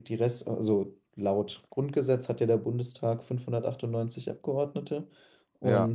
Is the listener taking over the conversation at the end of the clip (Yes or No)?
No